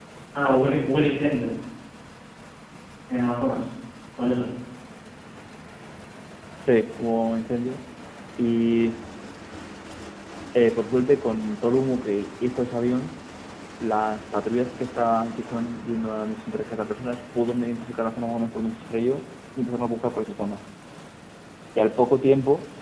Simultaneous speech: No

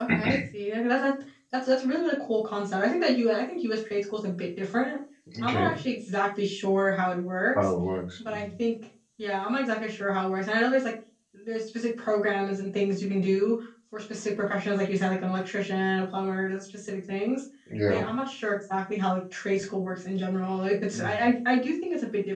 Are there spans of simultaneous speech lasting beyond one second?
No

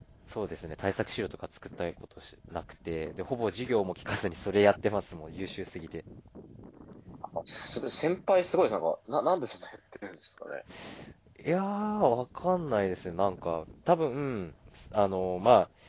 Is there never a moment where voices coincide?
Yes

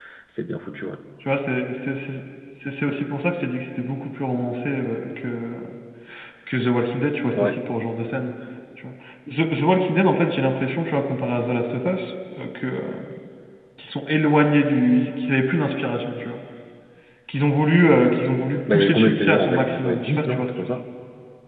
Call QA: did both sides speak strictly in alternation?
No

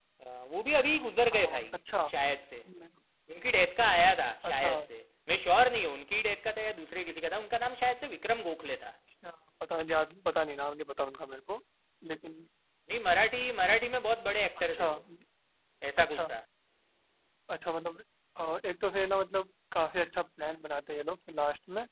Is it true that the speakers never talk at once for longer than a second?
Yes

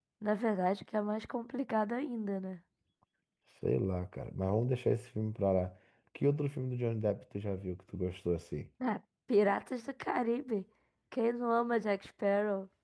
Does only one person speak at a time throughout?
Yes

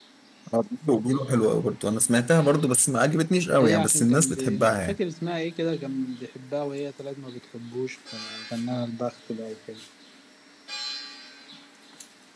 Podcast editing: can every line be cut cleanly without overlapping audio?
No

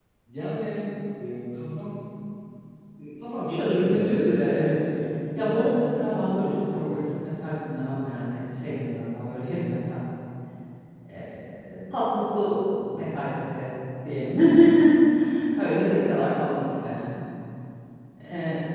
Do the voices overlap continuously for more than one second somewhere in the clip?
Yes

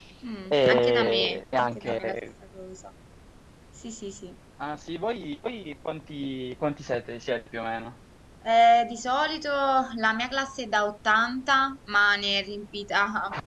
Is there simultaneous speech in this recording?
Yes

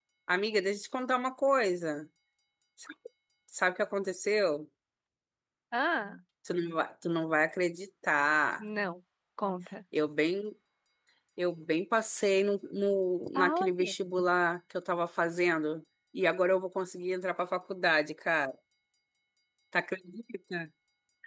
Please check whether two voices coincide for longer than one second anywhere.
No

